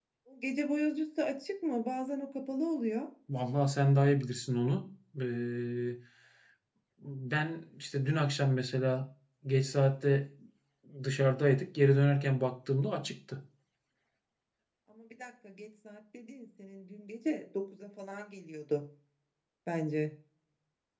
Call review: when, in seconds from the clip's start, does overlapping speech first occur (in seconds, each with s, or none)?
none